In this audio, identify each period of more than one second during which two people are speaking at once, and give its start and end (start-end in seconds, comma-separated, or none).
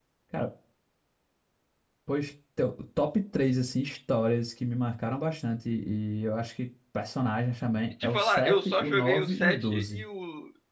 8.0-10.0